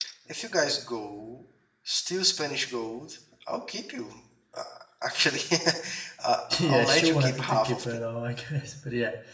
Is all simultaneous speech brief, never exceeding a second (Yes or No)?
No